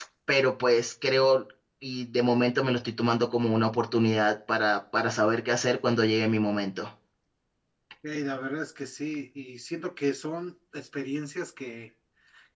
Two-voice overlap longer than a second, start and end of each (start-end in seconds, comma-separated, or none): none